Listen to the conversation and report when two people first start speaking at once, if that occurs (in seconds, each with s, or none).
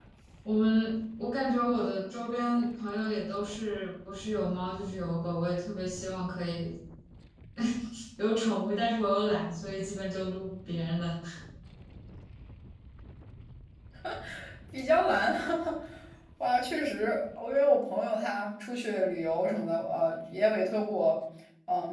none